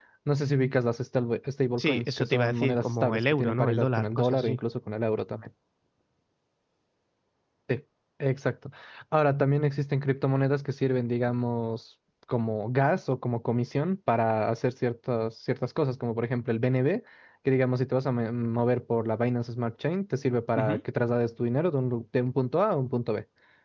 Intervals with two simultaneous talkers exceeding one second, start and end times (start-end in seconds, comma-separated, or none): 1.8-4.6